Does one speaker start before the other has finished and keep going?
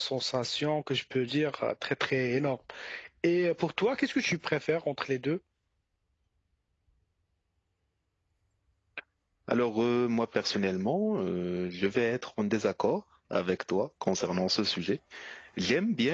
No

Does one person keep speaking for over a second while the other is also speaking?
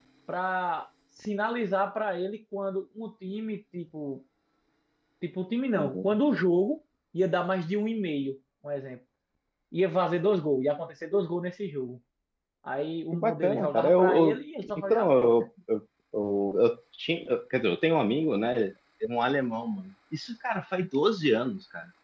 Yes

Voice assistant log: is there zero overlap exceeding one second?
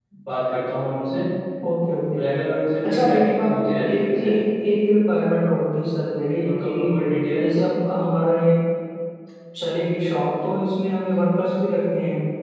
No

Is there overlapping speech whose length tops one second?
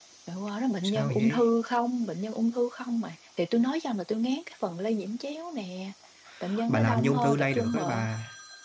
Yes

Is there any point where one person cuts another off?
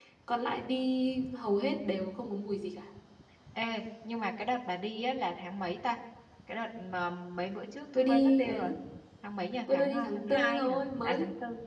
Yes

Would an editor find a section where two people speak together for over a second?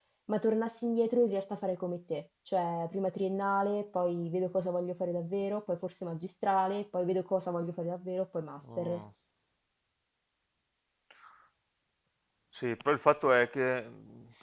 No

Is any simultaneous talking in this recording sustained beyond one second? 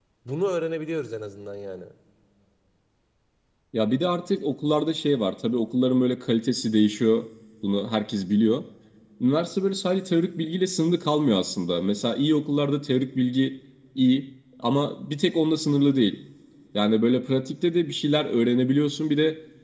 No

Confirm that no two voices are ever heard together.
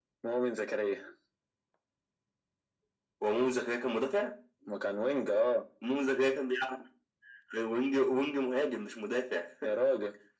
Yes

